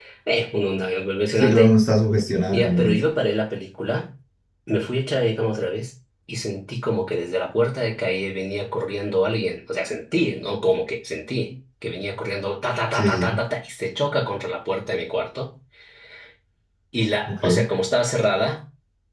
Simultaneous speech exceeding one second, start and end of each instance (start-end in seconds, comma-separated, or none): none